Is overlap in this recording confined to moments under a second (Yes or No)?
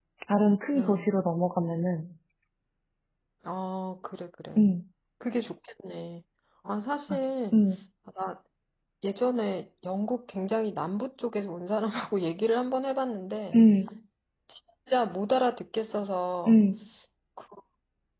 Yes